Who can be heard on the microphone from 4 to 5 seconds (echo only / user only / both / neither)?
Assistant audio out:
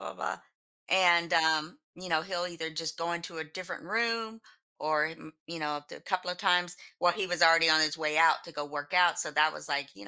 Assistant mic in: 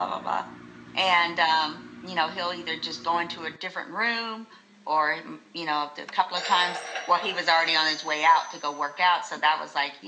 echo only